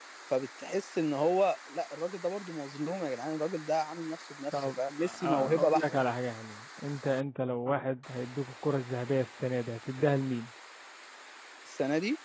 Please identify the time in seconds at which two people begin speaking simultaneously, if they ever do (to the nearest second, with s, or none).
5 s